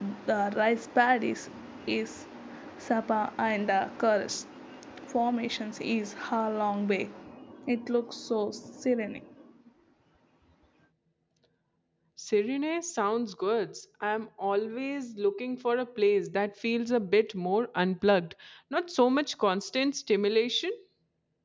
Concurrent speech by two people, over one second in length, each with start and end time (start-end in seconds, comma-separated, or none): none